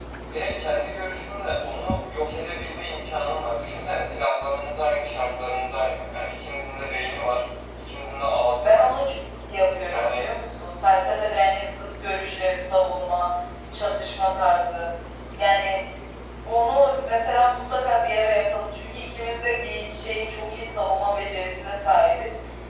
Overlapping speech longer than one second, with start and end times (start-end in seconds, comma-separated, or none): none